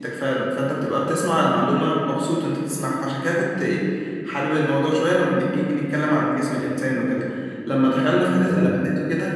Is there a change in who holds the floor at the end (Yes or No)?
No